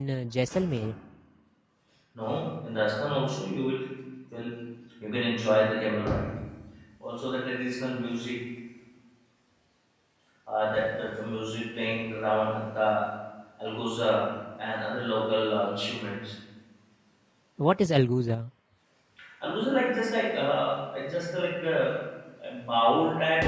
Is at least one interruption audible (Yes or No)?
No